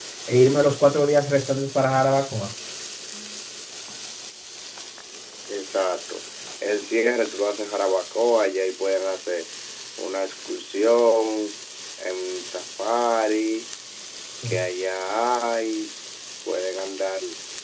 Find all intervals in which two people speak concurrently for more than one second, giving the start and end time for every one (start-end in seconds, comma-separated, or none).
none